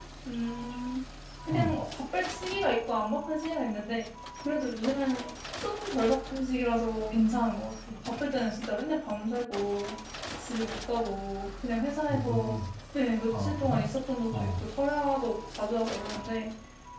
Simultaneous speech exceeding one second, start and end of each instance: none

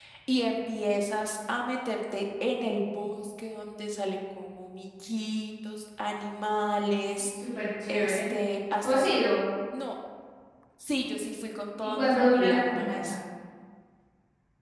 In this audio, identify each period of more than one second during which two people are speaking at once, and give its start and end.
11.8-13.2

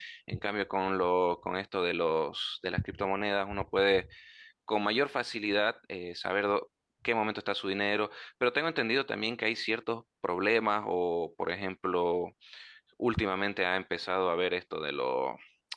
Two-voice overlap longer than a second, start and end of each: none

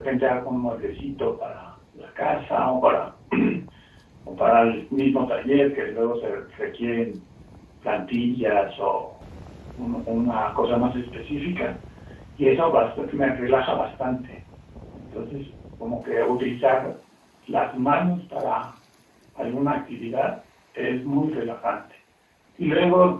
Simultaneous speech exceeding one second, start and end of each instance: none

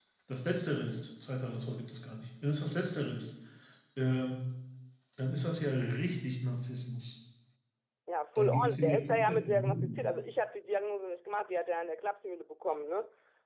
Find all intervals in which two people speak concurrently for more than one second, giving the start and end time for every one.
8.4-10.1

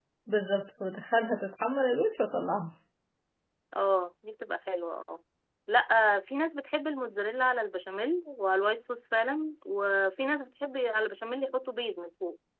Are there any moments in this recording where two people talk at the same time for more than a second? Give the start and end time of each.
none

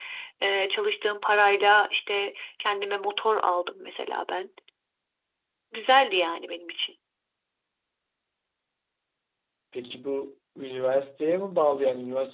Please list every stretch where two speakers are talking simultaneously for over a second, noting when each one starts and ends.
none

